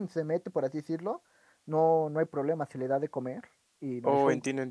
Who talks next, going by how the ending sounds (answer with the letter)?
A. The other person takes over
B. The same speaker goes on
A